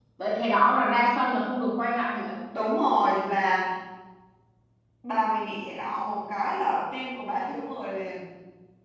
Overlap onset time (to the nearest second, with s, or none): none